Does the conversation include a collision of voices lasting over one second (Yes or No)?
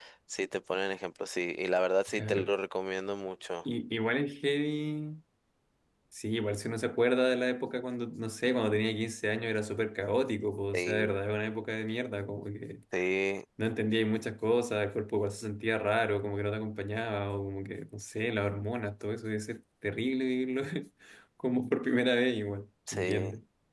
No